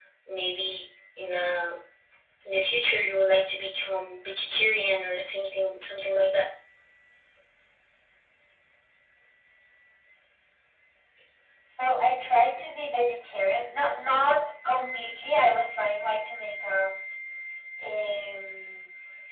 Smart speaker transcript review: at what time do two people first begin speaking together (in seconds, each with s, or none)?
none